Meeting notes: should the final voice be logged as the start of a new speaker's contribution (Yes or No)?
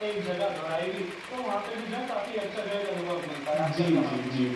Yes